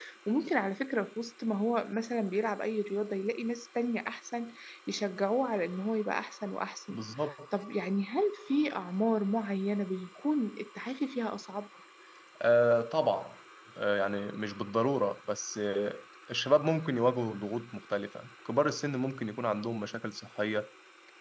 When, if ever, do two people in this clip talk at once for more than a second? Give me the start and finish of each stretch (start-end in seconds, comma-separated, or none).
none